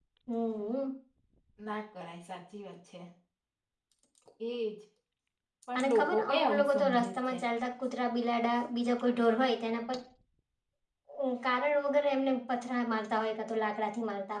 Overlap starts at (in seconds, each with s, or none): 5.8 s